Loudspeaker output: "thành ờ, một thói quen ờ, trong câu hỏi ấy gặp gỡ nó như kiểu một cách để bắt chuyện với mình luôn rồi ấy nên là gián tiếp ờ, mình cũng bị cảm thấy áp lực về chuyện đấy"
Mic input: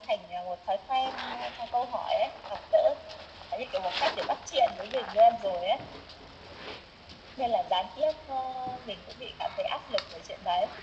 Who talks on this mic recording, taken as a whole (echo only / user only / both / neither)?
echo only